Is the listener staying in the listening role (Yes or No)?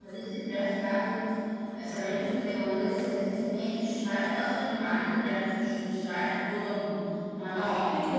No